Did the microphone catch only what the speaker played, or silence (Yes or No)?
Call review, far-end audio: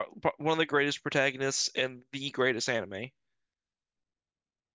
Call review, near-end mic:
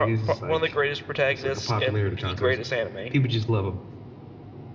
No